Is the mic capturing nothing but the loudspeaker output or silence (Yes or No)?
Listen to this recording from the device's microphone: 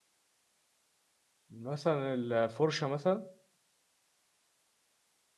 No